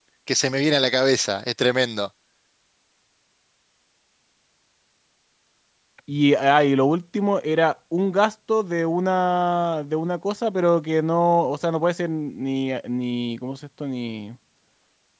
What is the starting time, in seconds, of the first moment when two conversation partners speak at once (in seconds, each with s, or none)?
none